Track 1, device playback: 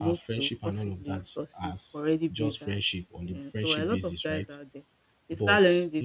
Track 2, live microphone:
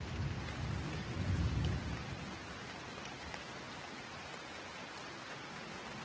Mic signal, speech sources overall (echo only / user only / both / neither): neither